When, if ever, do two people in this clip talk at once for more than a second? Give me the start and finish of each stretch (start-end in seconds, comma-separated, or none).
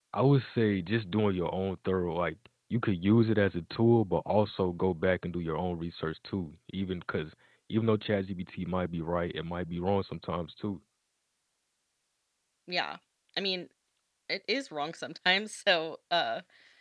none